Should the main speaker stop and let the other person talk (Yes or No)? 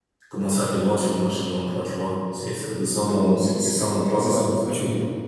Yes